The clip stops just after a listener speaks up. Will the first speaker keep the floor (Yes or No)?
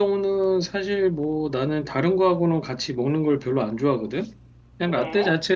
Yes